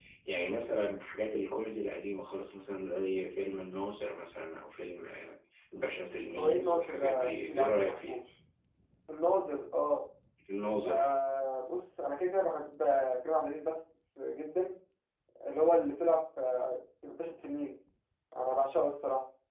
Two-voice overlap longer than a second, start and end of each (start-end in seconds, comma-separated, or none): 6.4-8.2